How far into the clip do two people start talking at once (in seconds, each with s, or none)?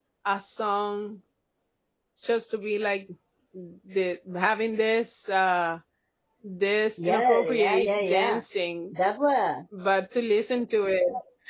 7.1 s